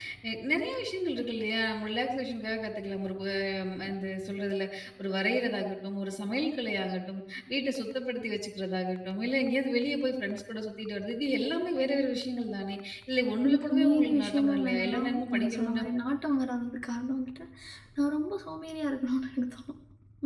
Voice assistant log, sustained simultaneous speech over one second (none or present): present